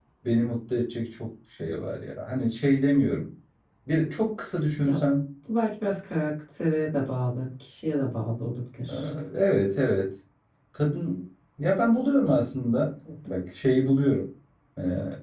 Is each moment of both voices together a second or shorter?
Yes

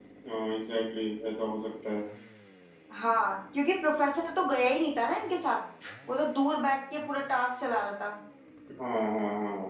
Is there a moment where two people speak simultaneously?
No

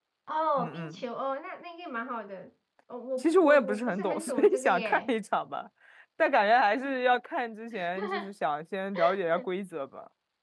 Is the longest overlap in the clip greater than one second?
Yes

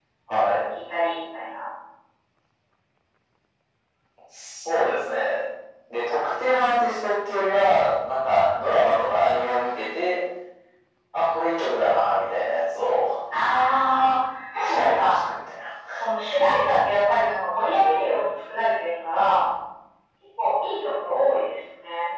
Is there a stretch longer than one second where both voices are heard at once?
No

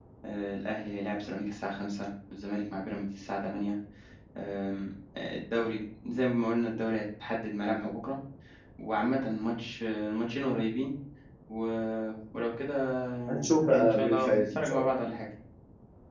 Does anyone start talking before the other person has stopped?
Yes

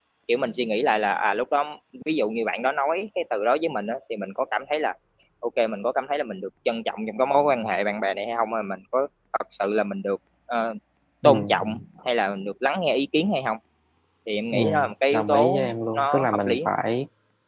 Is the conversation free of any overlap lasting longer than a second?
No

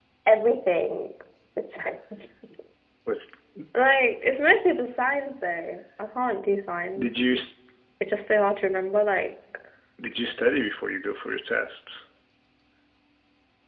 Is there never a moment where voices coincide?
Yes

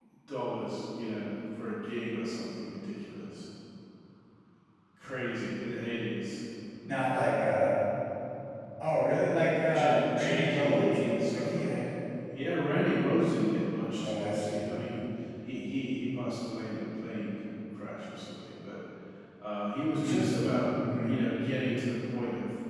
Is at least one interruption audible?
Yes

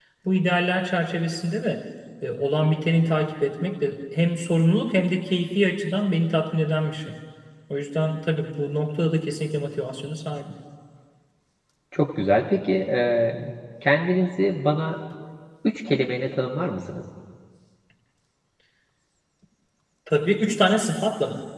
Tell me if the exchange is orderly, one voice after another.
Yes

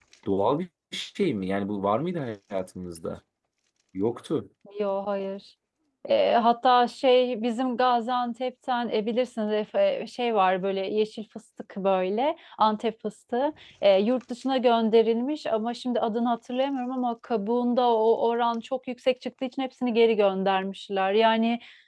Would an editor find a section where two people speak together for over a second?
No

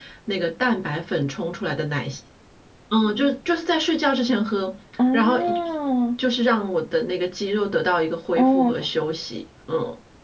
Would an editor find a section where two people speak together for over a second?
No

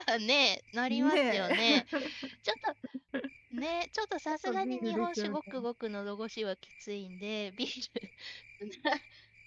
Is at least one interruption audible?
Yes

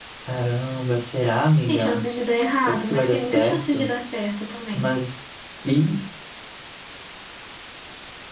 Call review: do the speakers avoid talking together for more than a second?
No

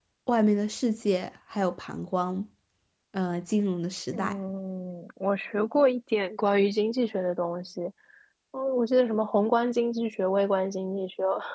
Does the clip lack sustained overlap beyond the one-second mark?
Yes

